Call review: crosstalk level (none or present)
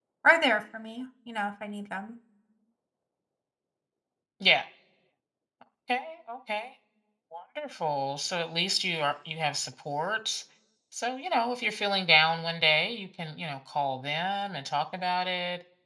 none